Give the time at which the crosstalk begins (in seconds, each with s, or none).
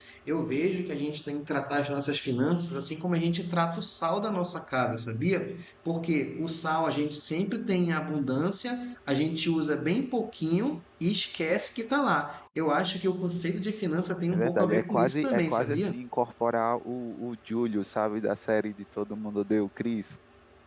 14.3 s